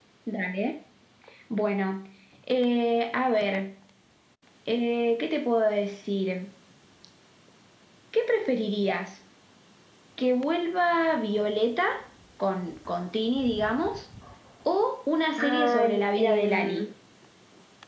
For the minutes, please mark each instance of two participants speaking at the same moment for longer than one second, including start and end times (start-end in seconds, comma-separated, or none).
15.4-16.9